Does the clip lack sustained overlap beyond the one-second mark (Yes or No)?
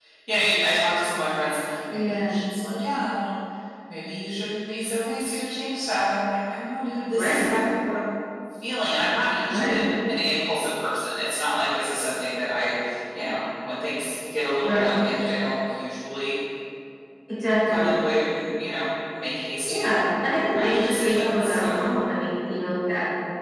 No